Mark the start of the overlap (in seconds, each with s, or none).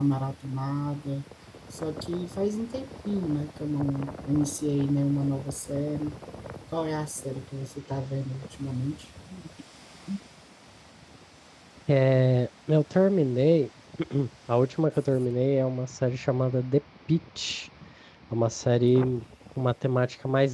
none